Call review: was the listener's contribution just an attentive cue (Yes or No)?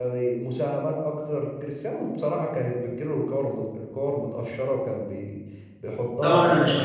No